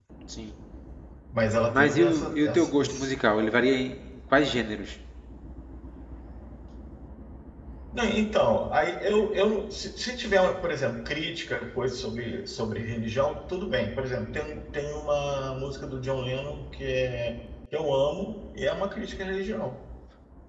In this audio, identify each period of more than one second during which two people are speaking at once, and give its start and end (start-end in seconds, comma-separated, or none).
1.7-3.1